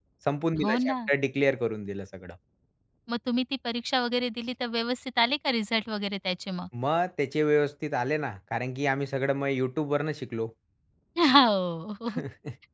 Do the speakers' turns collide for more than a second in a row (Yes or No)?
No